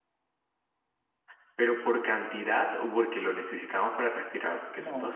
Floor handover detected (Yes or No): Yes